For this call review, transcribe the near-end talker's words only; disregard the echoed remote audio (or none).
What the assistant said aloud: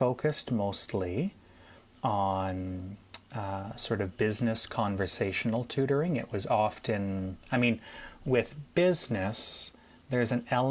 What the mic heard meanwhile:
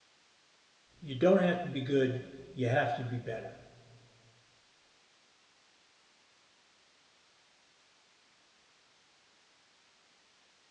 You don't have to be good. You have to be better.